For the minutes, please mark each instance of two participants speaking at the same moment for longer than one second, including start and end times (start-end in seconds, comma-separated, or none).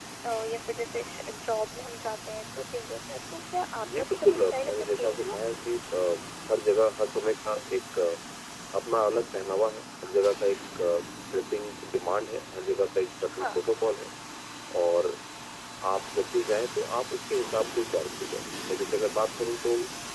3.8-5.4